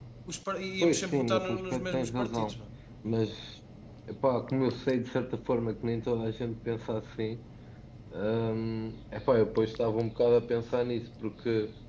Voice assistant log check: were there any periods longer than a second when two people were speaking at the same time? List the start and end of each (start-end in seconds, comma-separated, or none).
0.8-2.5